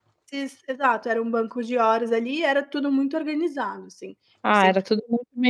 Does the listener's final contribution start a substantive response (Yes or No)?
Yes